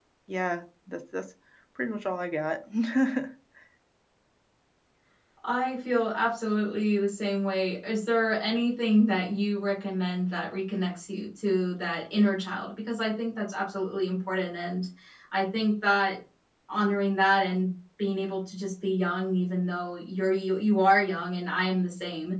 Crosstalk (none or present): none